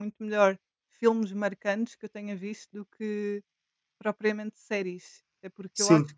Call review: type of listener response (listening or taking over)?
listening